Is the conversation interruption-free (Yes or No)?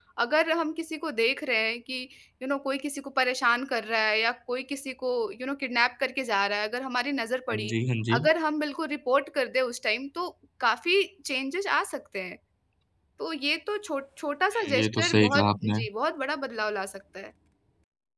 No